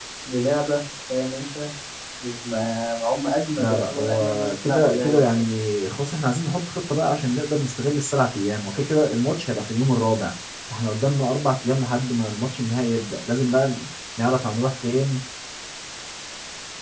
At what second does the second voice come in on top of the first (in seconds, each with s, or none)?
3.6 s